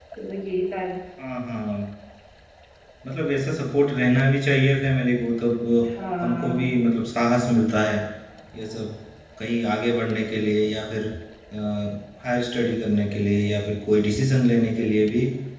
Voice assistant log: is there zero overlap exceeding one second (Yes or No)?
Yes